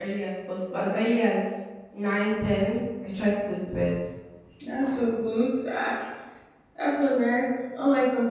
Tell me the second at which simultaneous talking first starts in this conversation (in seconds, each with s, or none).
none